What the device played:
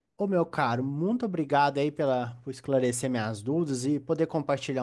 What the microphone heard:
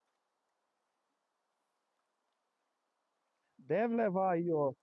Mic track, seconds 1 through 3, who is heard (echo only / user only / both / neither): neither